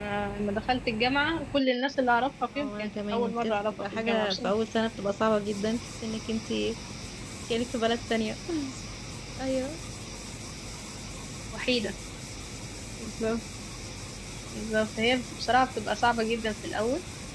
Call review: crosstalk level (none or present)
present